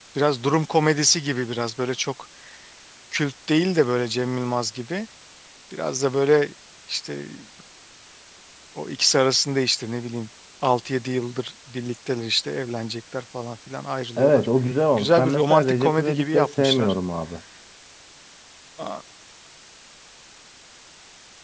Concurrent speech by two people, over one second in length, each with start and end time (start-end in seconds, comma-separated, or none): 15.0-16.9